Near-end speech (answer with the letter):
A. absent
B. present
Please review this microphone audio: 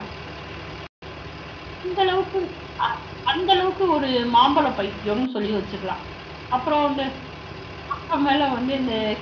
A